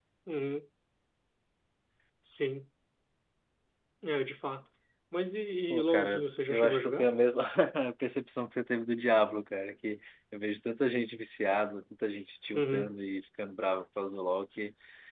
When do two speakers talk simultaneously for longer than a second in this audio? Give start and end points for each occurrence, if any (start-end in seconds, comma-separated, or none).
5.7-7.1